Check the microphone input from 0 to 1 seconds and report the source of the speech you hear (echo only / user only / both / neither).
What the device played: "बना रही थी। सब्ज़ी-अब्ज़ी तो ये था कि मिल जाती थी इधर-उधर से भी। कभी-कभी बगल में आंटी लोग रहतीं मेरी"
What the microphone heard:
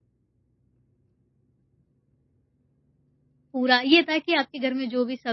neither